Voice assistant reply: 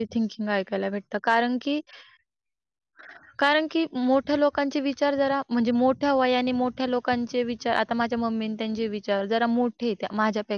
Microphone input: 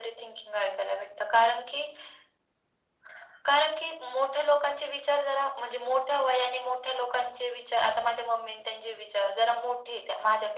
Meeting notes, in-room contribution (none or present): none